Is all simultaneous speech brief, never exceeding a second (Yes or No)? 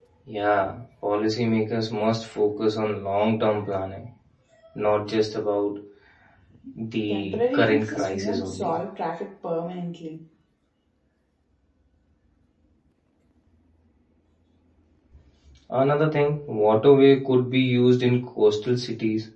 No